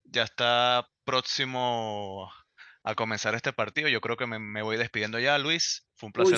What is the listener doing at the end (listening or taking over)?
taking over